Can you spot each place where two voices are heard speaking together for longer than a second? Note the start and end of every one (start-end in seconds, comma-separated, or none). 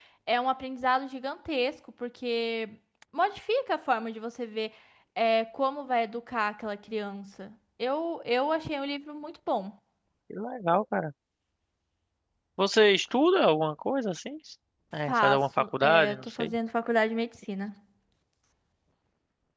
15.1-16.5